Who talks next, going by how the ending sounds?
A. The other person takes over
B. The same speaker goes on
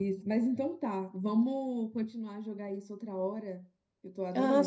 A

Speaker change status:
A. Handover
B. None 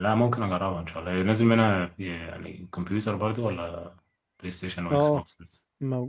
A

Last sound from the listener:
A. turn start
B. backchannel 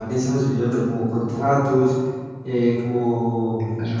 B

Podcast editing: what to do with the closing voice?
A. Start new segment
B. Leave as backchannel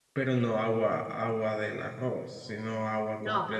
A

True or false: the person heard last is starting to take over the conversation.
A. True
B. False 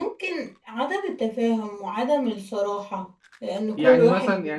A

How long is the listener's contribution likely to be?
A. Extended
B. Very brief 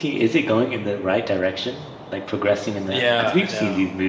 A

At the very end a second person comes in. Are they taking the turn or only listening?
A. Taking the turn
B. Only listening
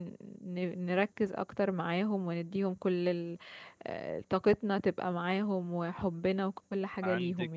A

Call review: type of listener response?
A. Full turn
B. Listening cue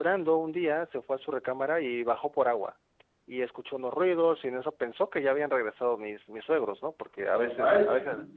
B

